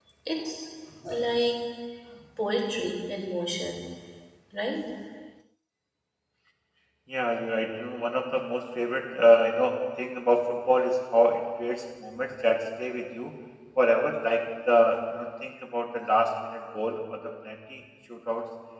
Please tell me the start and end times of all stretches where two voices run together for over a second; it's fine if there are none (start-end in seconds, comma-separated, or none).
none